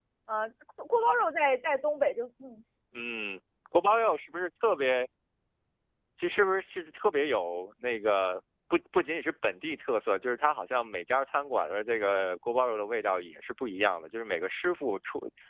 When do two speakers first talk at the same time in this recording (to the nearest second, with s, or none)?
none